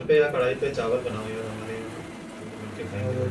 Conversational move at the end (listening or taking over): taking over